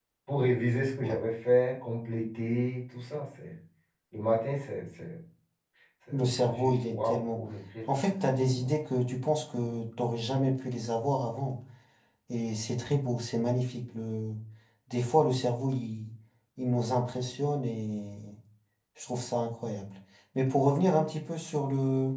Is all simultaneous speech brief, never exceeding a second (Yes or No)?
No